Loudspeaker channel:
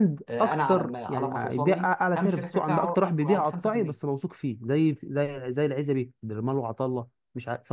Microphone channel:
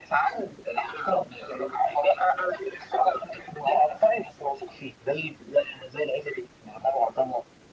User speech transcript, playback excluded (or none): none